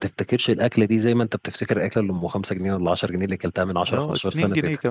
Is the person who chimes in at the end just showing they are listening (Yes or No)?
No